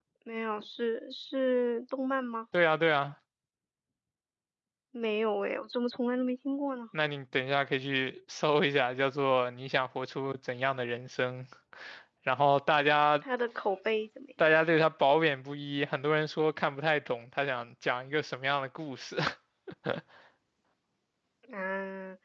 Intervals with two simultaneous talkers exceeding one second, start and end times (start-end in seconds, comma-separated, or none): none